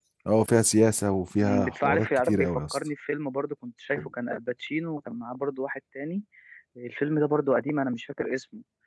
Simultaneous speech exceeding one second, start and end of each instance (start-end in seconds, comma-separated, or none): 1.4-2.8